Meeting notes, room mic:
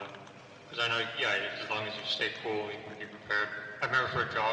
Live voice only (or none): none